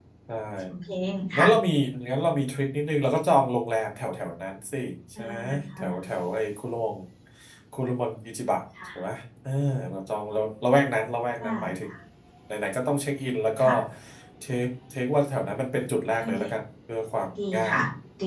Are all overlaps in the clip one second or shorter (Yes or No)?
Yes